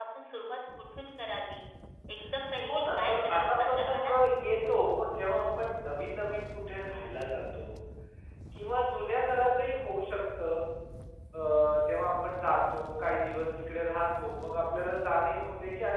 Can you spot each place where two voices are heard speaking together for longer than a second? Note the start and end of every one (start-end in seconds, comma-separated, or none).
2.7-4.1